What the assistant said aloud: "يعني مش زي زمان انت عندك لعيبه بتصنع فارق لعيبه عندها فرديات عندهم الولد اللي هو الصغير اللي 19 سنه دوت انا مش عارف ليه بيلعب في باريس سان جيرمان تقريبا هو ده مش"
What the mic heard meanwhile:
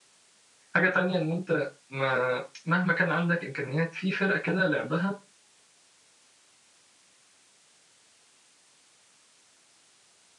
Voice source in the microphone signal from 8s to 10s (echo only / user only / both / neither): neither